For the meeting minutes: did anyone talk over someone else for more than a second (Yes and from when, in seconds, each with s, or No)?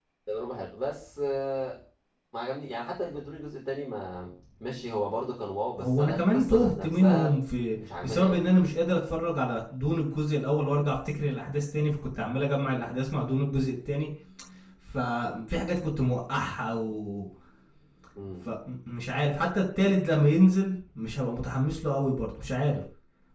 Yes, from 5.7 s